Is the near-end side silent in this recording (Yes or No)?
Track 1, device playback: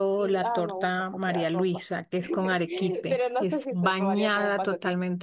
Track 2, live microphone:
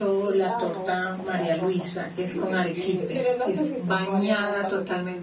Yes